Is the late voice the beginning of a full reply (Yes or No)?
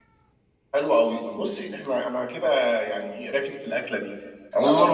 No